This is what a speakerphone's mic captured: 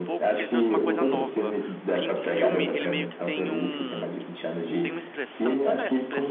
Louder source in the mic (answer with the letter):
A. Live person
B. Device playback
B